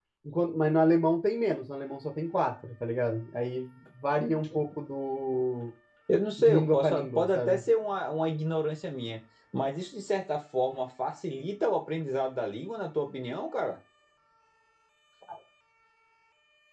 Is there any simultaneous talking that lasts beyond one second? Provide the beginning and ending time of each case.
6.4-7.6

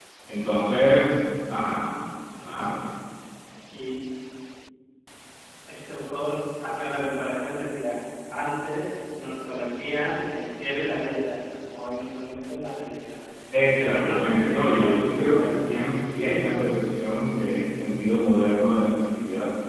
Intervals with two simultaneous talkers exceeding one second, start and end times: 13.6-15.9

